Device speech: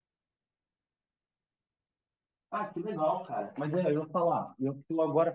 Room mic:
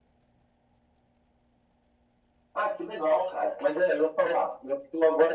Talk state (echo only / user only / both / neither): echo only